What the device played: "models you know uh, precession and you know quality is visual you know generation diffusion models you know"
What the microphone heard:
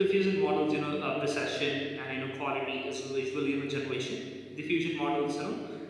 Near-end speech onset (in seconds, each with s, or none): none